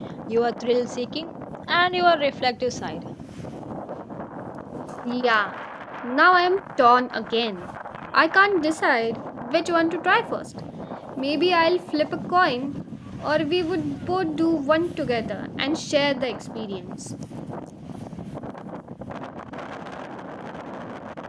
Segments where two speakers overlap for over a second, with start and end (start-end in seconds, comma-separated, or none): none